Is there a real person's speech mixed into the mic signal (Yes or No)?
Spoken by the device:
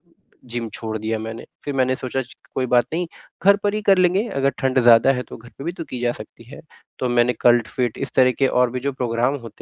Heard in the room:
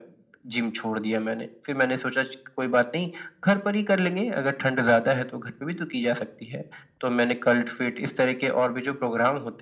No